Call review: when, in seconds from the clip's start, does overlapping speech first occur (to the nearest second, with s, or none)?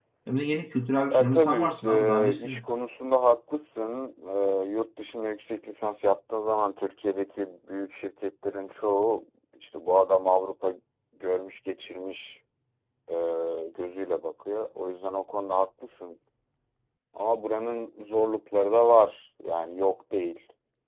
1 s